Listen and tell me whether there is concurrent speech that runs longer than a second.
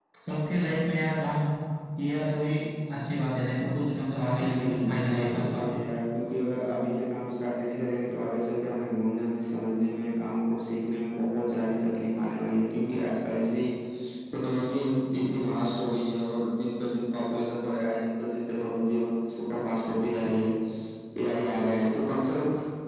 Yes, from 4.4 s

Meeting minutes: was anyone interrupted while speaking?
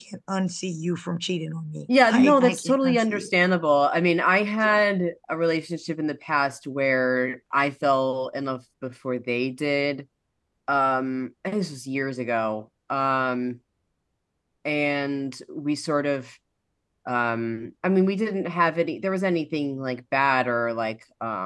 Yes, from 2.0 s

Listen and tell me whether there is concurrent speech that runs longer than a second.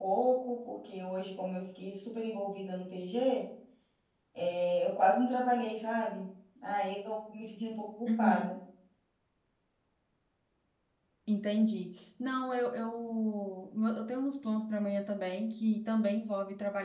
No

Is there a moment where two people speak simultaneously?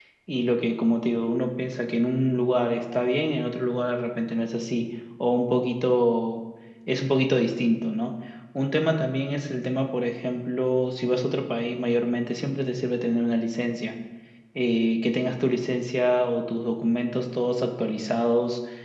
No

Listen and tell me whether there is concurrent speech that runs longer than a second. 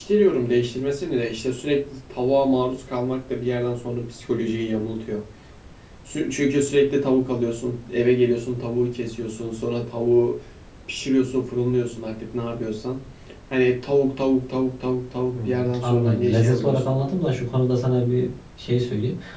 Yes, from 15.3 s

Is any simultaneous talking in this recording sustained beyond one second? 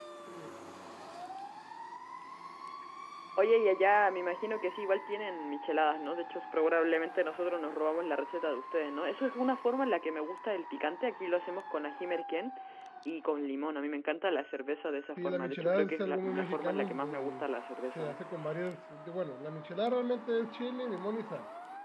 Yes, from 15.2 s

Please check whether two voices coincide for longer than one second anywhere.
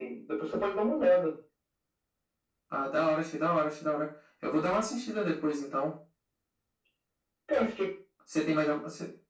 No

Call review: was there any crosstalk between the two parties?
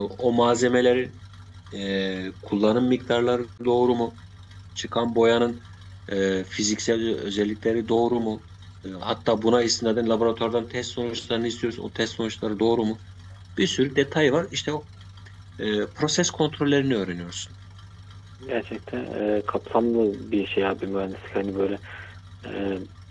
No

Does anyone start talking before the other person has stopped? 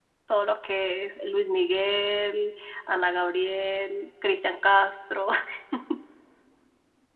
No

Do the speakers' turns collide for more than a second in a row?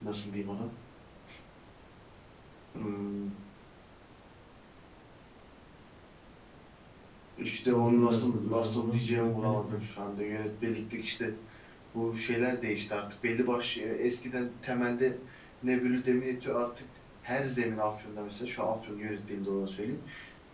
Yes, from 7.7 s

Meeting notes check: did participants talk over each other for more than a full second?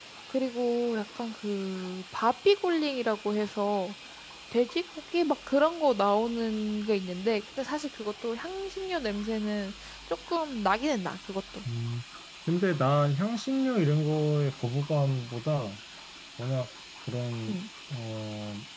No

